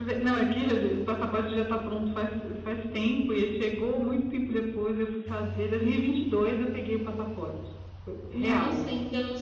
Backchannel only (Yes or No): No